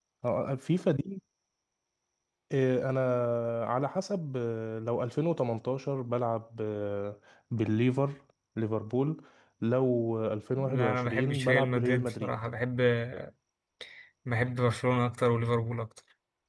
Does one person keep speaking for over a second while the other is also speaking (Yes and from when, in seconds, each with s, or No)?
Yes, from 10.6 s